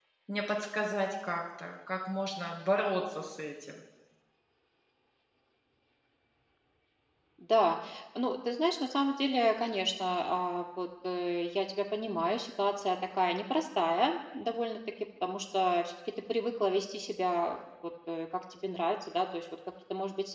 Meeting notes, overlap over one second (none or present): none